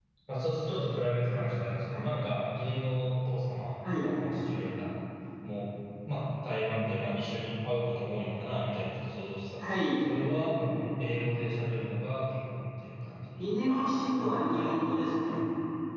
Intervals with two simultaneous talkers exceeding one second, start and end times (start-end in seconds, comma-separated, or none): 13.4-15.3